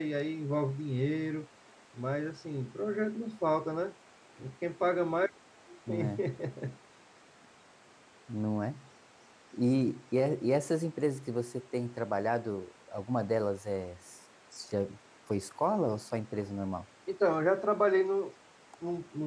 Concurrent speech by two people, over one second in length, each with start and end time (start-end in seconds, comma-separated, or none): none